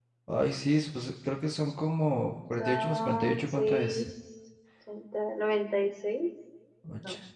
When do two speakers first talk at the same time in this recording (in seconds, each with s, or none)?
2.6 s